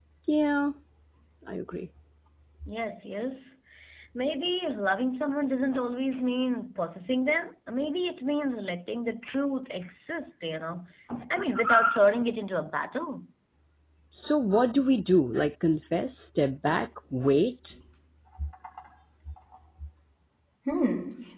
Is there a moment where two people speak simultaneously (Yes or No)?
No